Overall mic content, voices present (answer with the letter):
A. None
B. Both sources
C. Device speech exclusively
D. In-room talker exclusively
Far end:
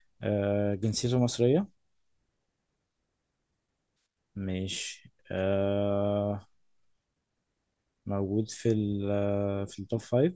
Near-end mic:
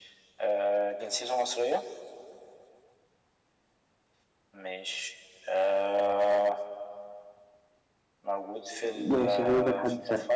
B